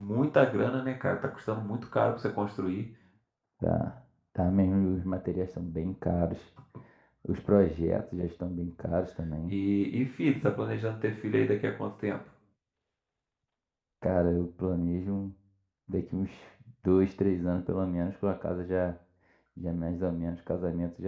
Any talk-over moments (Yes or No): No